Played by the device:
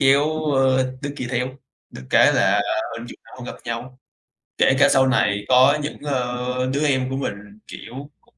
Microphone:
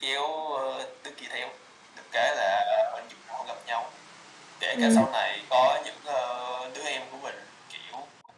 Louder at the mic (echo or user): user